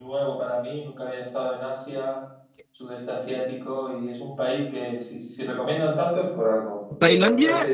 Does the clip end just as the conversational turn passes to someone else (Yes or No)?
Yes